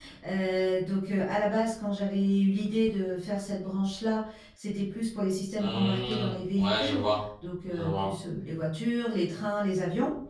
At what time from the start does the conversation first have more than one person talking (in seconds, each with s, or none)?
5.6 s